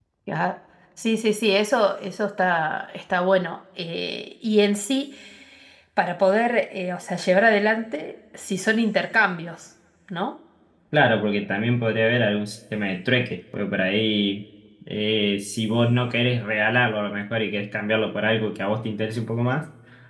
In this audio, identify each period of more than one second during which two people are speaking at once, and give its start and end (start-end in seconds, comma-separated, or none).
none